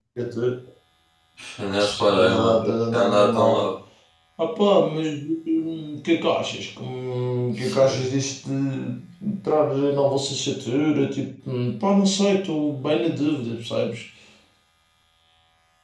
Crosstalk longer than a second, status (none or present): present